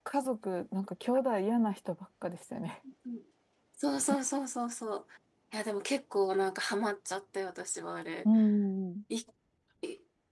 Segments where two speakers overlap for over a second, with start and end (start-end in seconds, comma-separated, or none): none